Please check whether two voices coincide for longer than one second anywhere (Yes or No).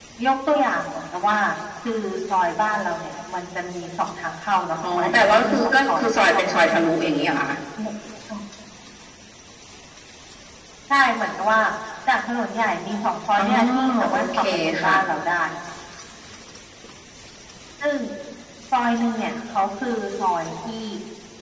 Yes